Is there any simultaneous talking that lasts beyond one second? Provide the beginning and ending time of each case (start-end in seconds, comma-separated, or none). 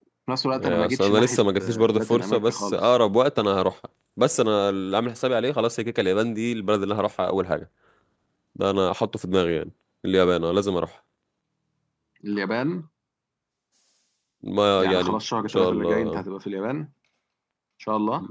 0.6-2.8, 14.8-16.2